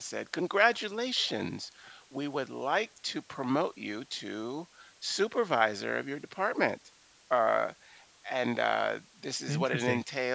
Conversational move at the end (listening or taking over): listening